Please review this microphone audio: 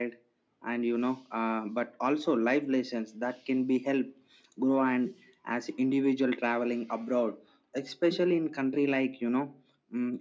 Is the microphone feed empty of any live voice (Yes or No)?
Yes